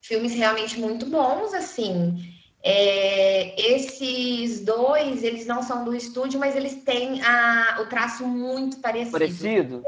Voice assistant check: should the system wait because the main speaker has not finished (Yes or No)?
No